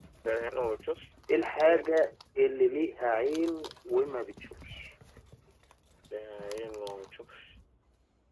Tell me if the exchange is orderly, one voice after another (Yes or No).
Yes